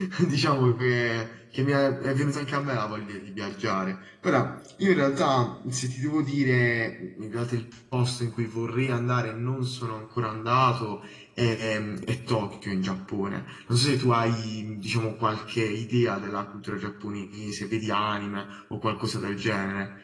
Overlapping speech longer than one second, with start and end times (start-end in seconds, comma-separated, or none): none